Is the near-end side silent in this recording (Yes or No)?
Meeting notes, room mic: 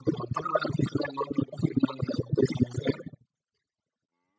Yes